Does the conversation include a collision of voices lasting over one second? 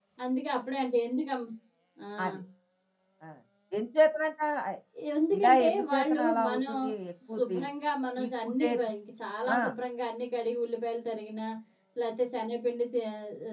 Yes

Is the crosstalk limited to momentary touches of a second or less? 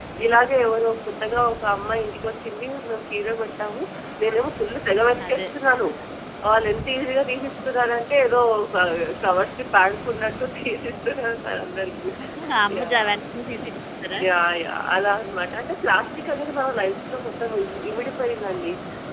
Yes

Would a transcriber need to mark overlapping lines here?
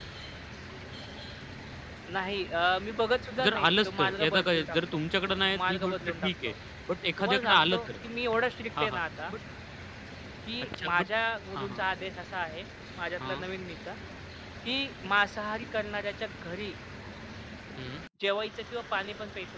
Yes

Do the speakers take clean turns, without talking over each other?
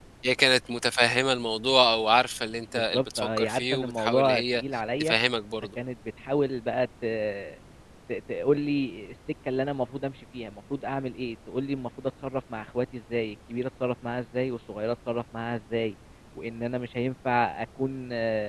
No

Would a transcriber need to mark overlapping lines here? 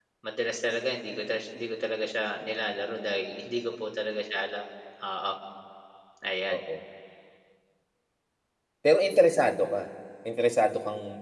No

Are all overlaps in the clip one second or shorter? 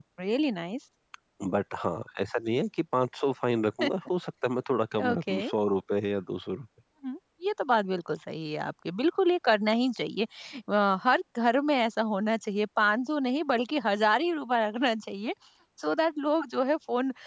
Yes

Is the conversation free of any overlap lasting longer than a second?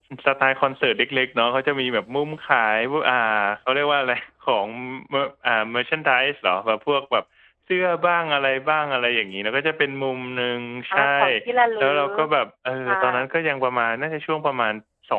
Yes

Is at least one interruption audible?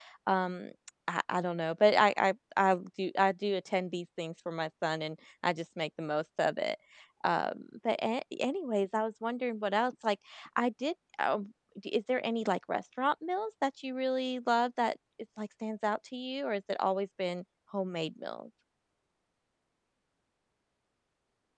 No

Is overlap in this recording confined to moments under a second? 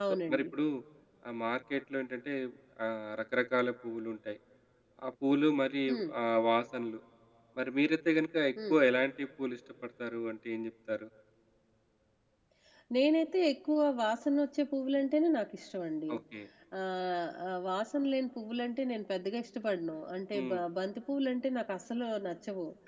Yes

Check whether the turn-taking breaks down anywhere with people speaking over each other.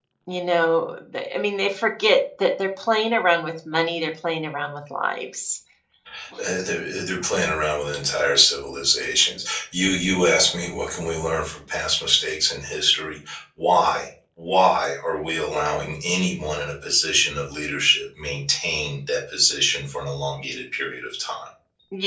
No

